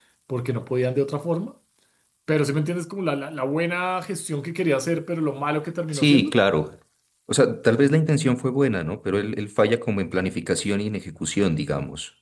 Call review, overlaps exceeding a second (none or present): none